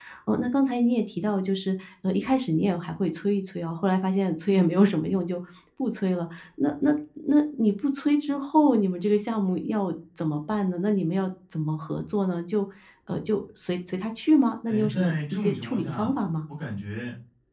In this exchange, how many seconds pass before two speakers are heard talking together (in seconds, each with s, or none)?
14.7 s